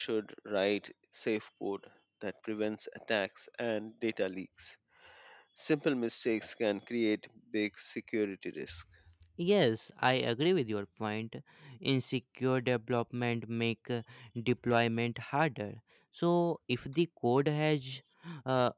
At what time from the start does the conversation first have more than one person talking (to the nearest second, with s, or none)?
none